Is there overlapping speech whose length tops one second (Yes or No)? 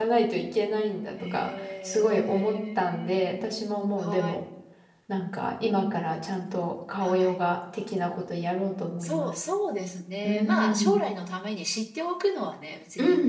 Yes